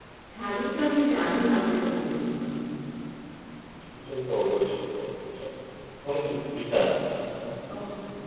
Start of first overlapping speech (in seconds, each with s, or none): none